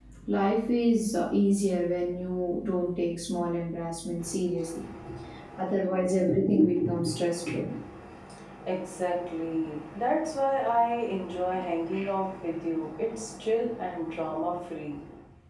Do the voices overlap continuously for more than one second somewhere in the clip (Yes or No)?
No